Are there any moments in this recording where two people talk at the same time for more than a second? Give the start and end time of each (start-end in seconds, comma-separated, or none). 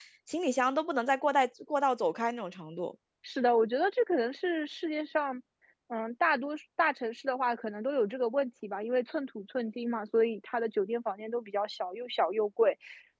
none